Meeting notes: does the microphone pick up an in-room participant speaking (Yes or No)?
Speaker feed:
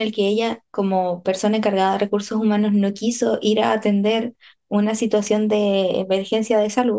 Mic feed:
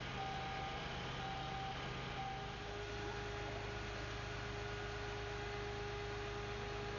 No